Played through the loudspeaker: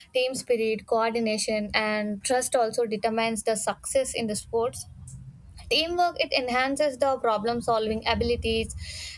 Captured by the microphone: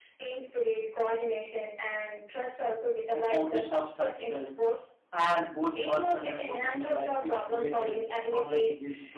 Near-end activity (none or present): present